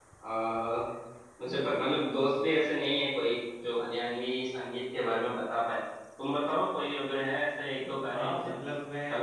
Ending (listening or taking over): taking over